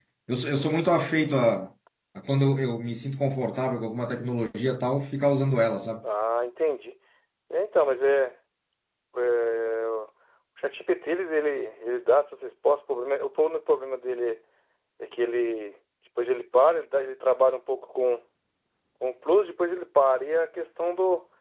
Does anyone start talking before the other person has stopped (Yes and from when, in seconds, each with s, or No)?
No